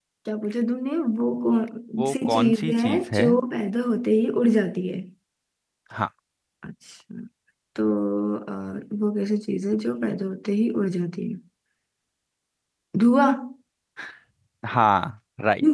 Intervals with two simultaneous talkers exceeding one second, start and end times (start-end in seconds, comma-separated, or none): 2.0-3.2